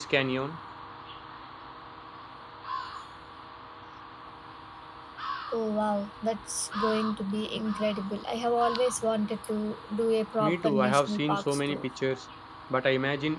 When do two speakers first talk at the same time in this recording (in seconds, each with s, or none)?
10.4 s